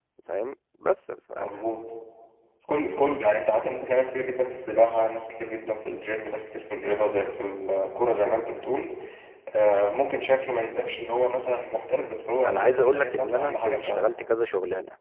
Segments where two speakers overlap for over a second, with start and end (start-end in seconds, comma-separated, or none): 12.4-14.1